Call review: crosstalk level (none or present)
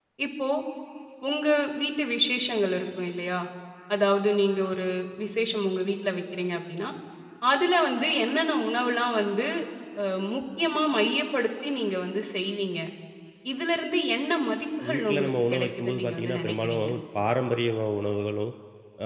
present